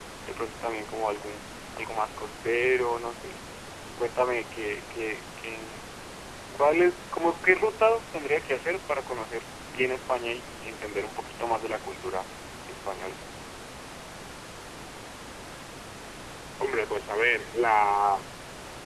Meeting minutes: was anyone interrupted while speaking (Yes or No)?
No